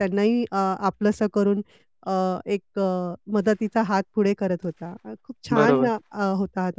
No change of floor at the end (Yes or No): Yes